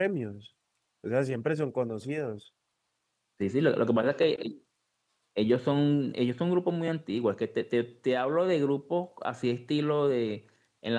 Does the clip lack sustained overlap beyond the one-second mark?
Yes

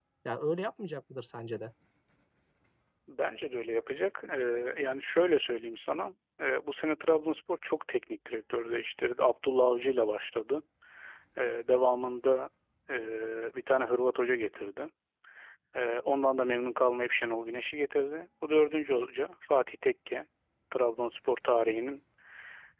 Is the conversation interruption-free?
Yes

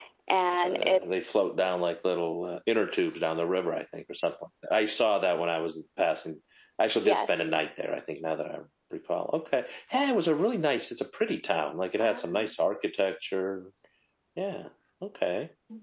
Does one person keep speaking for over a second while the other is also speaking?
No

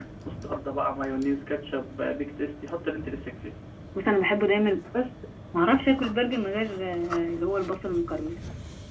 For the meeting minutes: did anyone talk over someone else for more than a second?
No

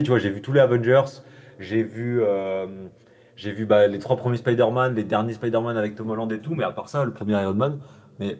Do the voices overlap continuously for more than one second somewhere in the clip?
No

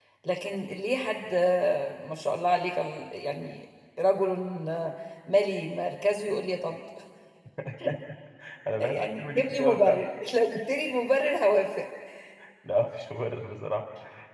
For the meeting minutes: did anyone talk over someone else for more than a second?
Yes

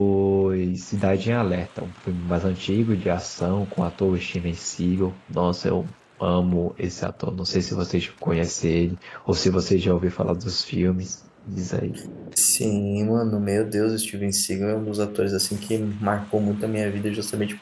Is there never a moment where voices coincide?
Yes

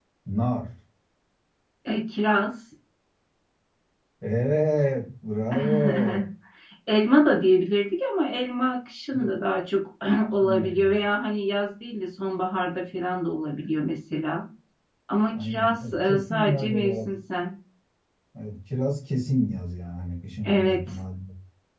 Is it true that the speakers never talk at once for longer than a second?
No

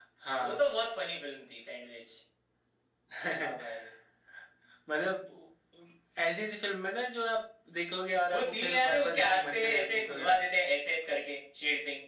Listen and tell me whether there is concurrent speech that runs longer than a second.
Yes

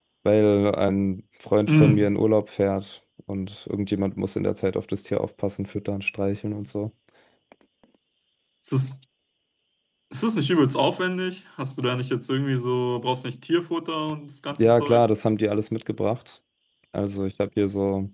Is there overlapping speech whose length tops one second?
No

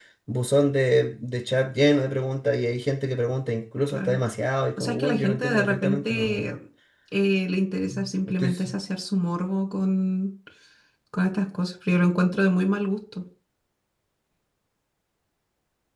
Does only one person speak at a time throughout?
No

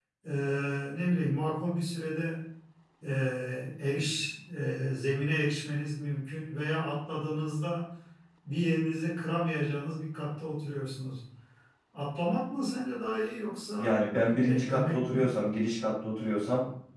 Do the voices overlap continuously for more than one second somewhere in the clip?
Yes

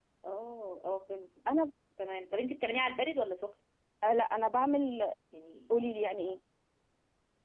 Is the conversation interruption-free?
Yes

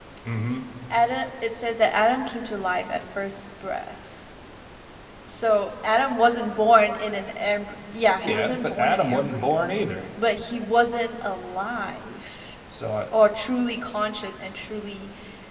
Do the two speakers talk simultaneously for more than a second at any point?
Yes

